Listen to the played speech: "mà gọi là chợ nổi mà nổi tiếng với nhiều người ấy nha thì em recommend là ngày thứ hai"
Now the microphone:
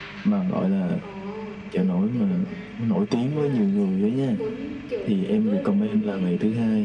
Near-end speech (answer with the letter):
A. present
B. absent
A